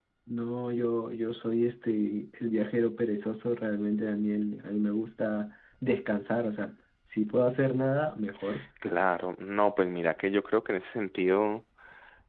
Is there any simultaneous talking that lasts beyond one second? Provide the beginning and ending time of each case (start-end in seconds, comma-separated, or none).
none